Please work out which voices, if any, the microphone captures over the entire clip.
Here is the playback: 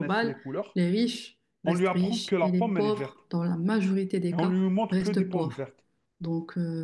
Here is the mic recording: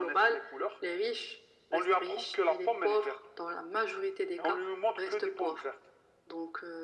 echo only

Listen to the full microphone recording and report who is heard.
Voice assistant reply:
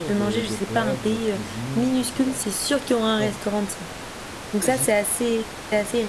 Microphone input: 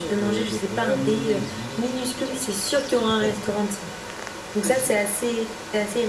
both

